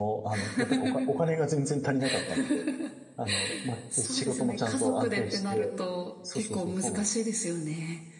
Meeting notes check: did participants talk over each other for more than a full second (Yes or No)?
Yes